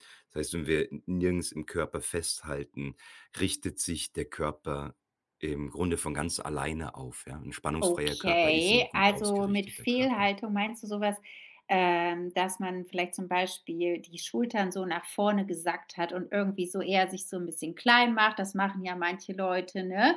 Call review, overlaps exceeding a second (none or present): present